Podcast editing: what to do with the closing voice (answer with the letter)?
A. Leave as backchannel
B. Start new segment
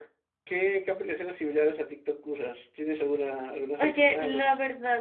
B